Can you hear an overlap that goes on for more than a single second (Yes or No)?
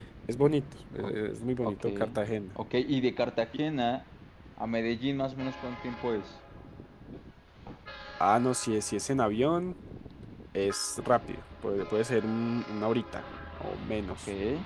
No